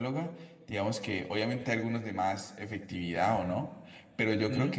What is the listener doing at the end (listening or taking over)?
listening